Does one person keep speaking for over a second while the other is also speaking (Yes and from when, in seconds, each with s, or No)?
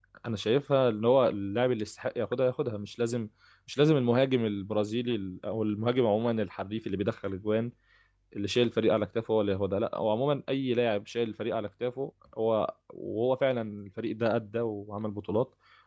No